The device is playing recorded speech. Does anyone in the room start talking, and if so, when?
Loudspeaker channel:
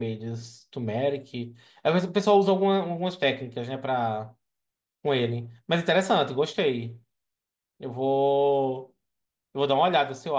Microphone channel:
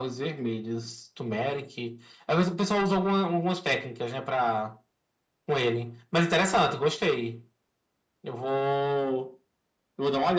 none

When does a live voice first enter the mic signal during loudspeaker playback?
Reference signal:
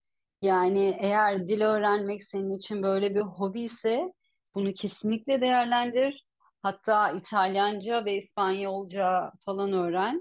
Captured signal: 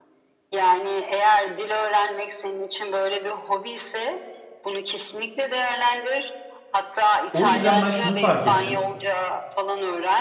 7 s

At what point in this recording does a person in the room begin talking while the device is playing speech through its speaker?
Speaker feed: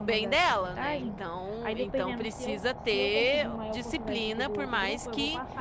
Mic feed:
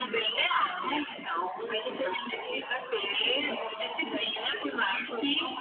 none

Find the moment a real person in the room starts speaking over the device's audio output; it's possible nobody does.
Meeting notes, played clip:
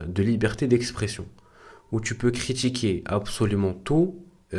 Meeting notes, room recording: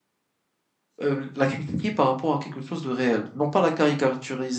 1 s

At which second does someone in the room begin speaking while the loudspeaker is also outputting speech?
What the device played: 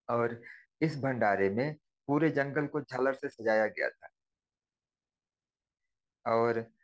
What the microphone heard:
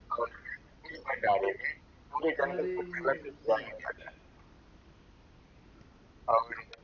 2 s

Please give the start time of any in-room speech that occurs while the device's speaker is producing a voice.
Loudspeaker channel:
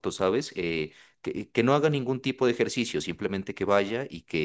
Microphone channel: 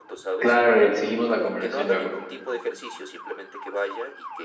0 s

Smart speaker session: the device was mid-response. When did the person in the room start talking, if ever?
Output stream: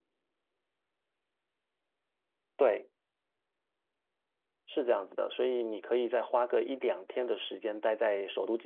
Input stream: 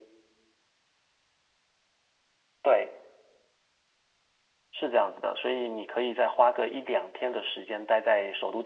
none

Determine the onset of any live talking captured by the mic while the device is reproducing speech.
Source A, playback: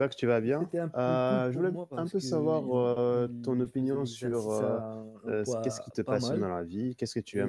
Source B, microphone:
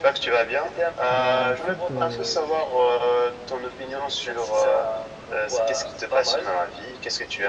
1 s

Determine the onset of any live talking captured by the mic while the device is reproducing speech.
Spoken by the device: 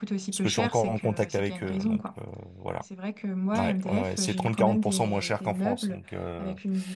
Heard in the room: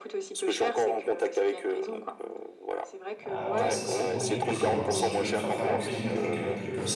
3 s

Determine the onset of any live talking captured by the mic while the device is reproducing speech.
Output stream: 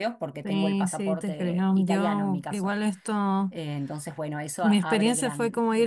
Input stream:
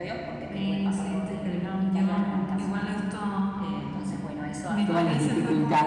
5 s

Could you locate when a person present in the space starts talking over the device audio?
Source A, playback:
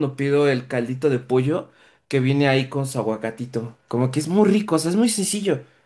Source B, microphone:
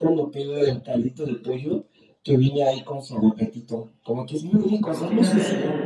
5 s

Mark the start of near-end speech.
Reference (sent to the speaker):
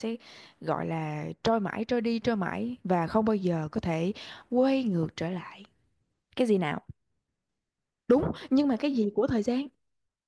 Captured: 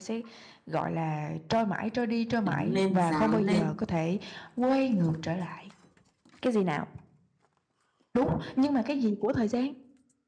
2 s

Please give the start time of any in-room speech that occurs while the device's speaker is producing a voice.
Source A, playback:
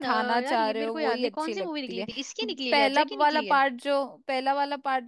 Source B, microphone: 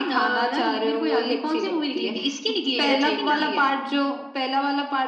3 s

